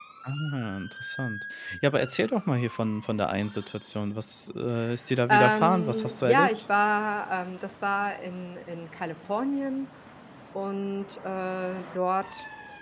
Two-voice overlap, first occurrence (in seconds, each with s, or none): 5.3 s